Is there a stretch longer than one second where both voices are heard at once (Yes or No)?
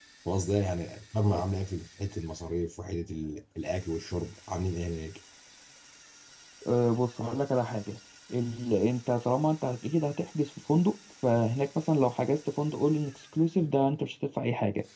No